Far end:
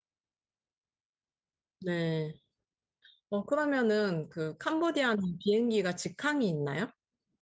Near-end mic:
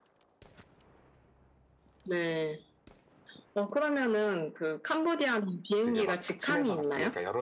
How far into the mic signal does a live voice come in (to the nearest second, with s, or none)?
6 s